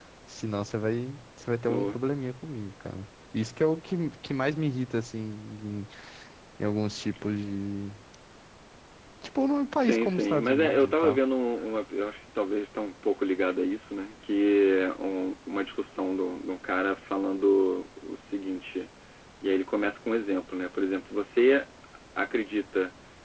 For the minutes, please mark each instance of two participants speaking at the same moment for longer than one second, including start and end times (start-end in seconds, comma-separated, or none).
9.8-11.2